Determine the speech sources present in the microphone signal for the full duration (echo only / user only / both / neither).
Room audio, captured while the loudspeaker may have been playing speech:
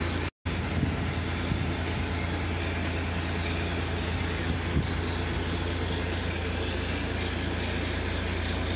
neither